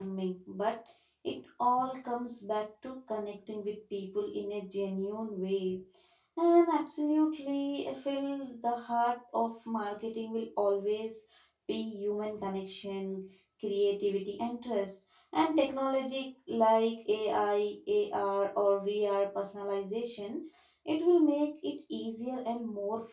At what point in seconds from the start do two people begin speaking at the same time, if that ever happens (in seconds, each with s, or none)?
none